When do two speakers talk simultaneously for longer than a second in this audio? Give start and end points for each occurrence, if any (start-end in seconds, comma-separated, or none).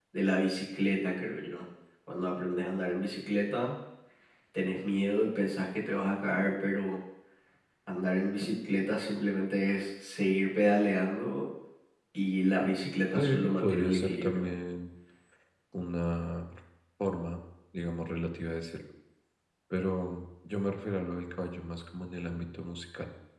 13.2-14.5